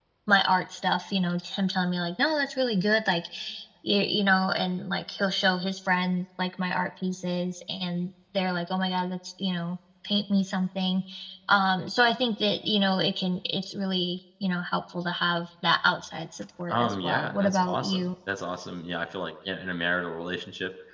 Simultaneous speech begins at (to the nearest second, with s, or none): 17 s